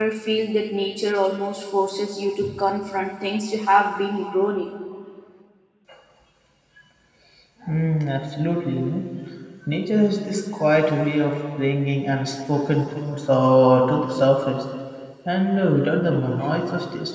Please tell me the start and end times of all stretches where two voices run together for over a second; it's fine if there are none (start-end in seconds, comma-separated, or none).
none